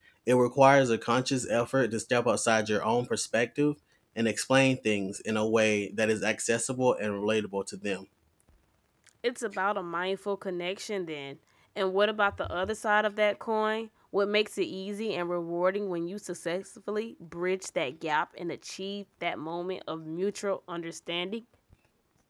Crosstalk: none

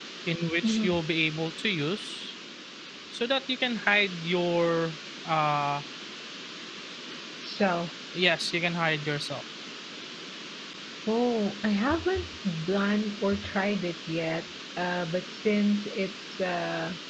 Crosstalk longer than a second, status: none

